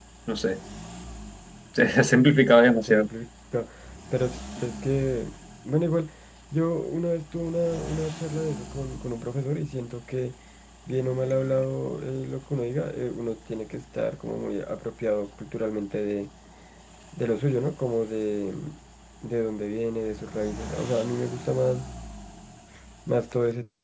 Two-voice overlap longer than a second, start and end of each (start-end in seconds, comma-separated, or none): none